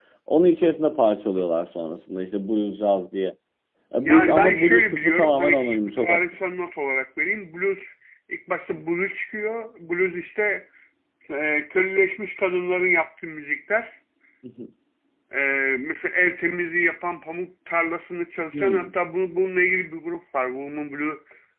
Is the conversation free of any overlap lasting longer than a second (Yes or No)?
No